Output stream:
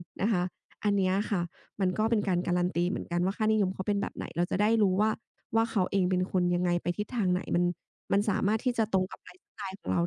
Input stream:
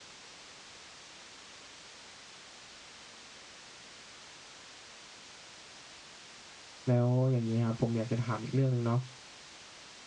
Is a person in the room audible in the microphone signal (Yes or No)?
Yes